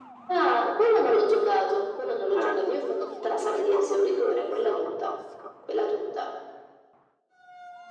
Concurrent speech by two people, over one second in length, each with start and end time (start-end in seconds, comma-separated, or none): 2.3-5.1